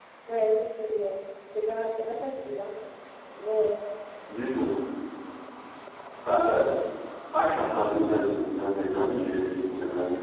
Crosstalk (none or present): none